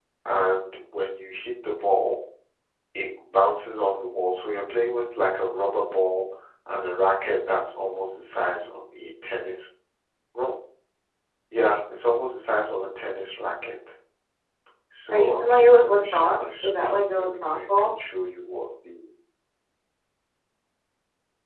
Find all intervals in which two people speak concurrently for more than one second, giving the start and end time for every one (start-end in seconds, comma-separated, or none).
15.1-17.9